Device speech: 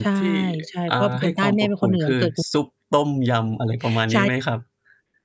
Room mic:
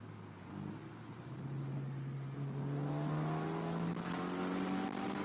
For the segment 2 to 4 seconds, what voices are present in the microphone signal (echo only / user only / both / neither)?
neither